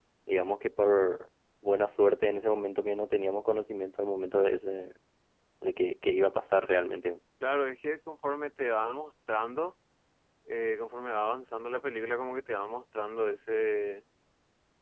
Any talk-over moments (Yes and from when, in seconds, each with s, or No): No